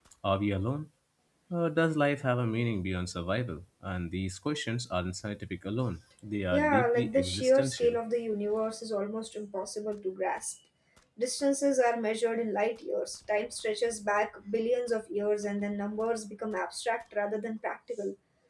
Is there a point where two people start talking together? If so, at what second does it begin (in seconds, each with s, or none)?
6.5 s